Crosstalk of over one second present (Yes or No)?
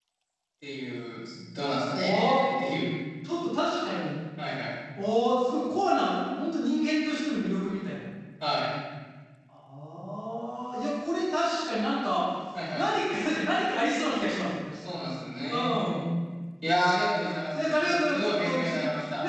Yes